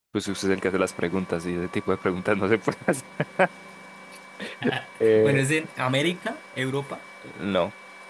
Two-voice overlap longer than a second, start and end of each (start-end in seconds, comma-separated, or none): none